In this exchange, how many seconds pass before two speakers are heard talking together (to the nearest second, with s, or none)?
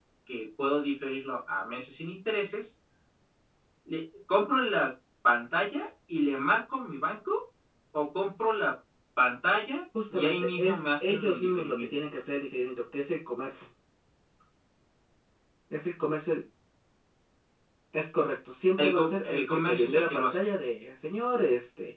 10 s